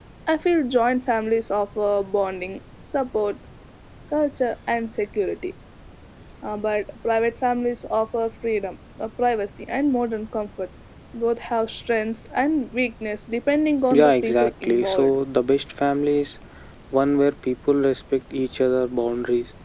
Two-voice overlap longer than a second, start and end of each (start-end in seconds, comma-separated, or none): 13.9-15.2